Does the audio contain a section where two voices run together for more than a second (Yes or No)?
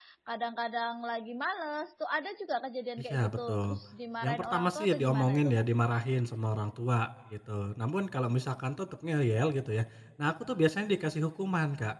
Yes